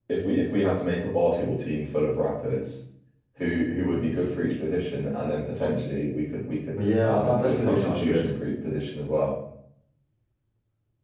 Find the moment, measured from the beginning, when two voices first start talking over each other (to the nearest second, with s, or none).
7 s